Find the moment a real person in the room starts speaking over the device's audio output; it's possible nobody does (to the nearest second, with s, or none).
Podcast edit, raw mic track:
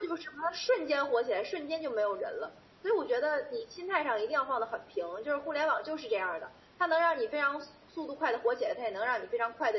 none